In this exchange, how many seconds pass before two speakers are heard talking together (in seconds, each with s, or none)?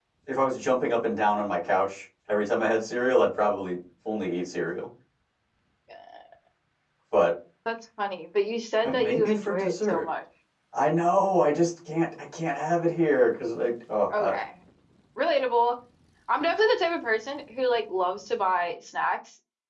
8.8 s